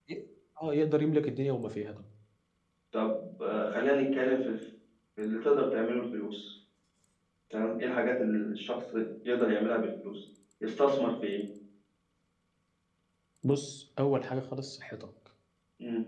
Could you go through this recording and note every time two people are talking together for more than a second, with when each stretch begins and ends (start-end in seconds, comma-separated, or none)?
none